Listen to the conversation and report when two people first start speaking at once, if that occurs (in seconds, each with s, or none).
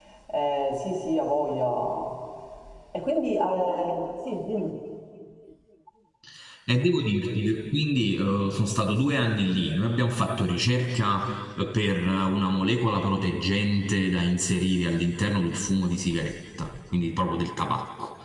none